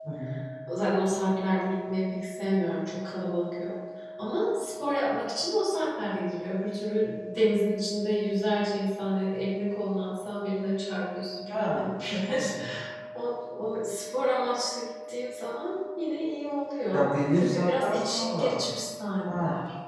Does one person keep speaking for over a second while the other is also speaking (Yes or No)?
Yes